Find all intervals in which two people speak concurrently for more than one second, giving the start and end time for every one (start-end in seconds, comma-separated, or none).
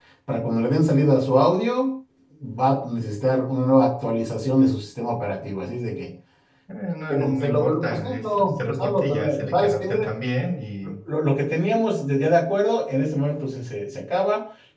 7.1-9.8